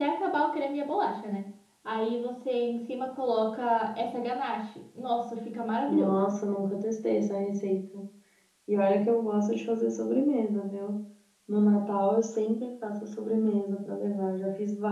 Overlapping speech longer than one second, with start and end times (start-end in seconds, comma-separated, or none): none